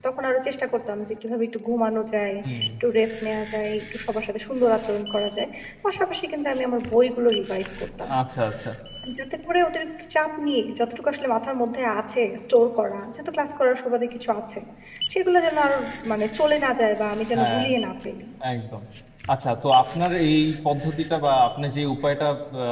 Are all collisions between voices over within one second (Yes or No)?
Yes